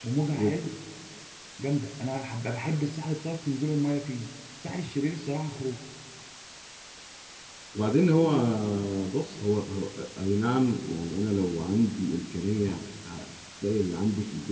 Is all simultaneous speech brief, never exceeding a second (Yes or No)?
Yes